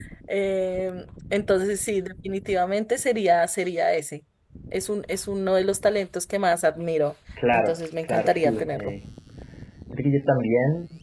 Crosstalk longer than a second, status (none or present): present